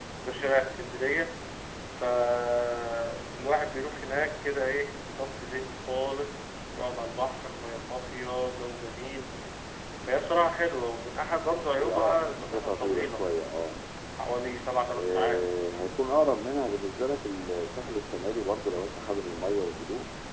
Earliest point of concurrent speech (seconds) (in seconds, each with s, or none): 11.8 s